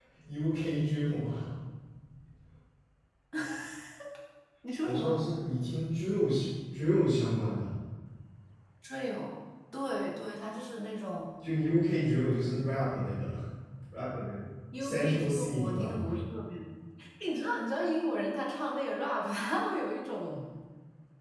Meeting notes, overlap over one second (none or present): present